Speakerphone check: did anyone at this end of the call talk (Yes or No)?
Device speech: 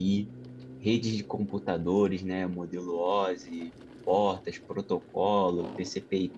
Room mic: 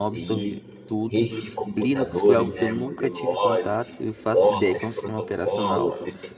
Yes